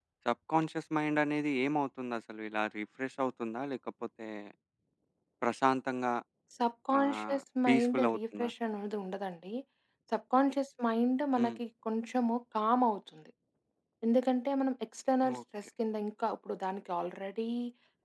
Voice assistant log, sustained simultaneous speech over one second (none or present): present